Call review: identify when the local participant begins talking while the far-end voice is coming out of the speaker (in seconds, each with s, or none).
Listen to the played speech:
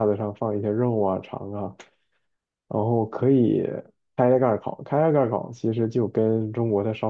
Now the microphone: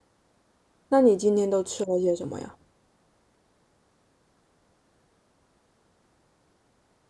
0.9 s